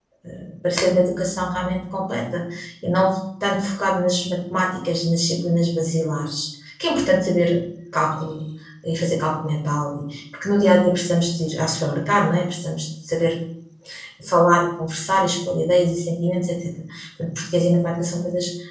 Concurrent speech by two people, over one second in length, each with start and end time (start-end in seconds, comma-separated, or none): none